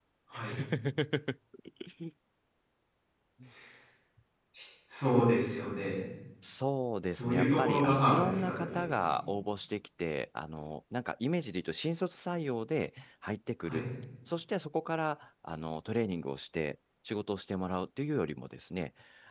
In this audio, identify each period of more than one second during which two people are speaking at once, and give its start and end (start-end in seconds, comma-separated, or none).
7.2-9.2